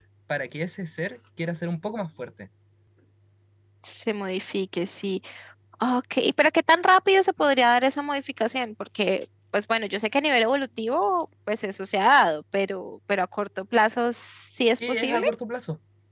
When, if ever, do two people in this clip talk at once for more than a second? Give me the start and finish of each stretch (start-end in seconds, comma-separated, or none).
none